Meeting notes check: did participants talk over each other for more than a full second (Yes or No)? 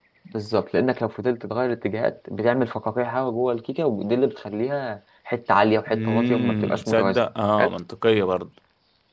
Yes